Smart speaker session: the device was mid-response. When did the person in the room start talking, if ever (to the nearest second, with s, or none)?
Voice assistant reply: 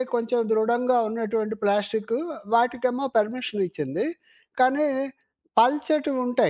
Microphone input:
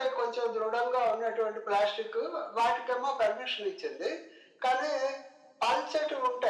none